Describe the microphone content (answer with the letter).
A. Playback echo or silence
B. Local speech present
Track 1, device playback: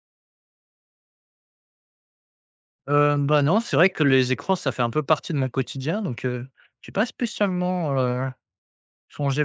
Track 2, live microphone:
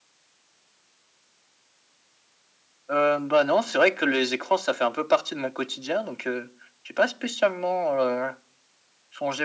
A